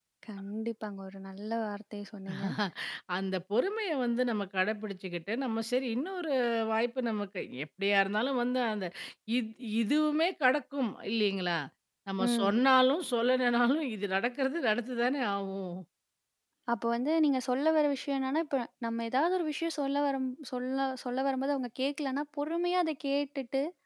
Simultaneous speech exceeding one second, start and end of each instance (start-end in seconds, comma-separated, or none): none